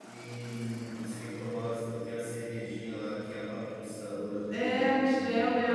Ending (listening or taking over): taking over